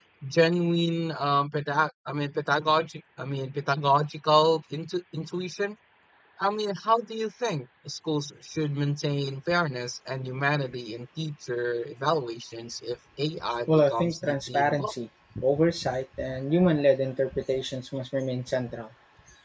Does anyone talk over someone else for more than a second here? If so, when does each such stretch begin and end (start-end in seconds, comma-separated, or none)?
13.7-14.9